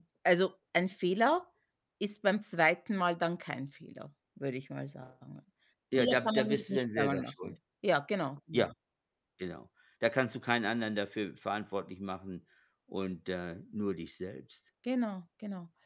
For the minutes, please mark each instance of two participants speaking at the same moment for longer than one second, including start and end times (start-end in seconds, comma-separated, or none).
6.0-7.5